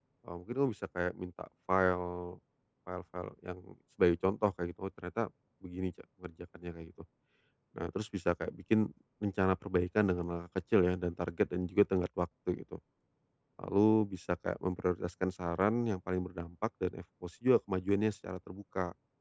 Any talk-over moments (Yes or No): No